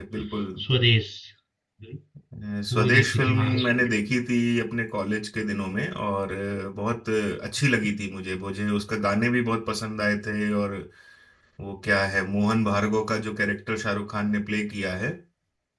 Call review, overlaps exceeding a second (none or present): present